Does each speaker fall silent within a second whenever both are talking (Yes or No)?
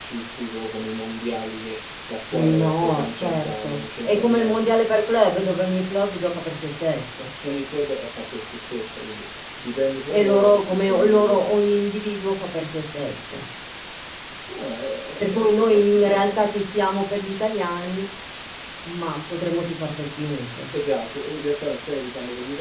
No